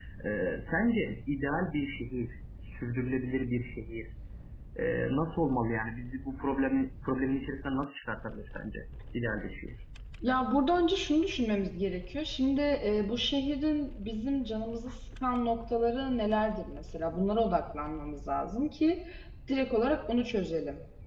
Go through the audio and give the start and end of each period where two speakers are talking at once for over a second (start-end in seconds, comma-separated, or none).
none